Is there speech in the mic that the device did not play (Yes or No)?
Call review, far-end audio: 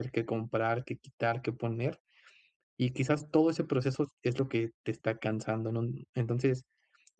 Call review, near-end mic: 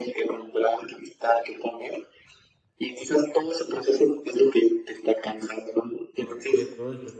Yes